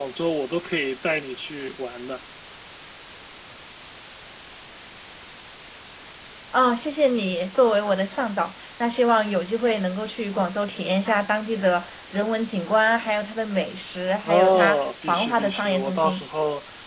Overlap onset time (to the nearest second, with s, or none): 14 s